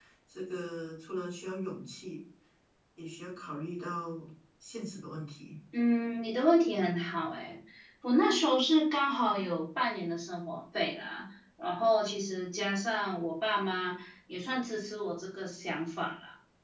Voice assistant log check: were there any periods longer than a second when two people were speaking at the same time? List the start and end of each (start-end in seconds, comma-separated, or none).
none